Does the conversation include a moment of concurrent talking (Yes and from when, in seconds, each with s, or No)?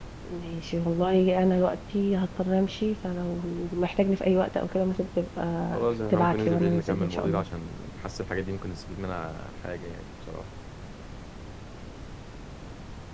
Yes, from 6.1 s